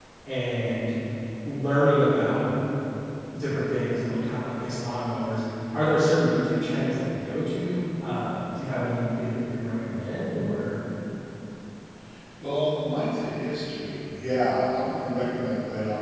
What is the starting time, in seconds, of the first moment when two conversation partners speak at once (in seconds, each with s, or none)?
none